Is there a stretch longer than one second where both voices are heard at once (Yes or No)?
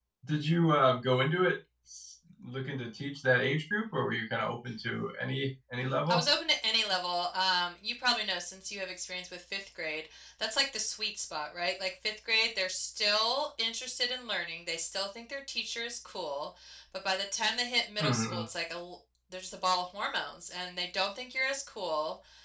No